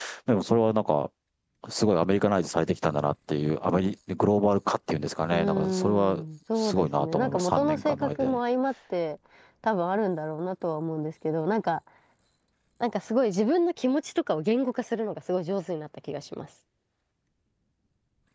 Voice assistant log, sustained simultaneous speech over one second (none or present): present